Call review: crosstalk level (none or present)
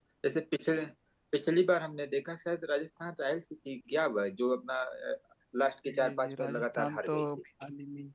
present